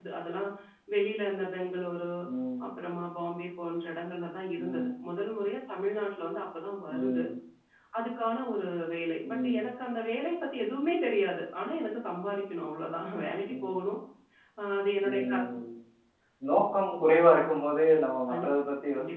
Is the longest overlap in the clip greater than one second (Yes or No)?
No